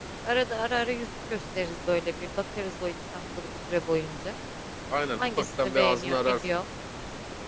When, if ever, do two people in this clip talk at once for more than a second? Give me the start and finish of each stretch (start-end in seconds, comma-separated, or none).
5.2-6.4